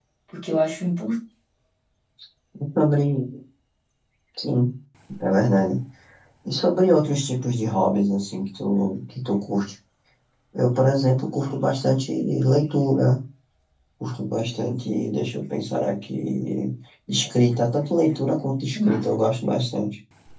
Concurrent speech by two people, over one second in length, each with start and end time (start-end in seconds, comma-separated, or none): none